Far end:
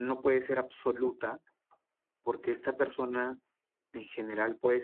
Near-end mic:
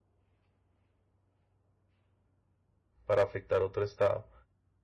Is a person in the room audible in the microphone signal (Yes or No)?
Yes